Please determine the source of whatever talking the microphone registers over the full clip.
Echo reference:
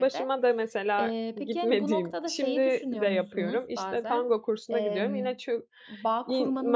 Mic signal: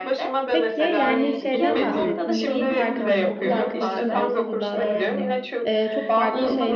both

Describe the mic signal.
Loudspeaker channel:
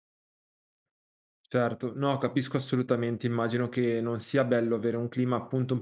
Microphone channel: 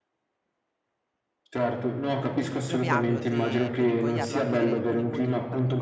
both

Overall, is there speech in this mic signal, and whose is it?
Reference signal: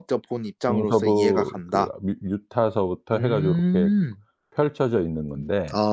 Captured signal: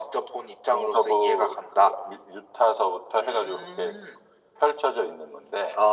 echo only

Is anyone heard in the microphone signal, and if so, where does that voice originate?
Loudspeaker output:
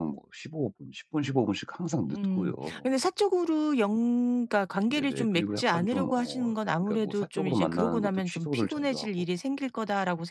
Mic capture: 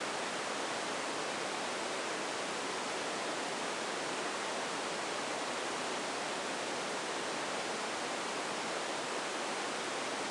neither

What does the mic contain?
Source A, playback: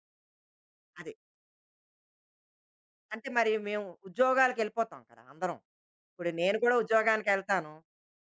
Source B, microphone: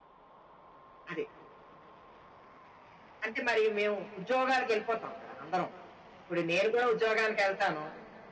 echo only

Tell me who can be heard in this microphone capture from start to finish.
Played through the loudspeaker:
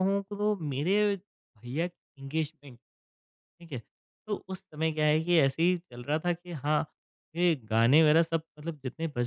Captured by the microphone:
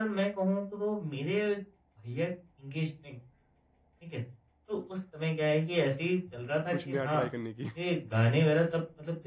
both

